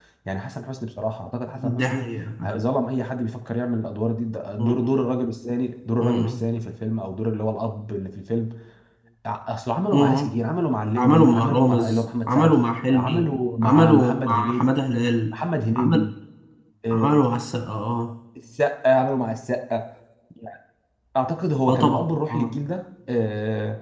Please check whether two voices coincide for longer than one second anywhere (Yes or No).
Yes